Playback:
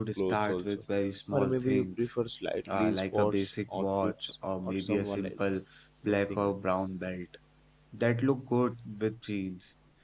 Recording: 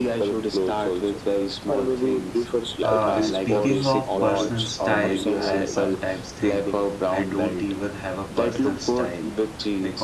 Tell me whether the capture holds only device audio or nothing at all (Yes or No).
No